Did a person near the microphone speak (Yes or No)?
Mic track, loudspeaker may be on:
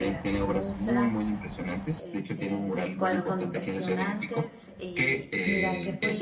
Yes